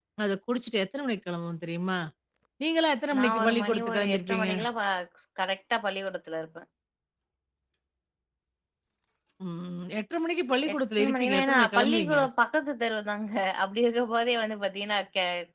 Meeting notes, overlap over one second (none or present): present